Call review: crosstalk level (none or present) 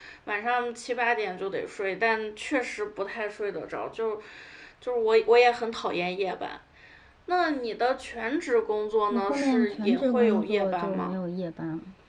present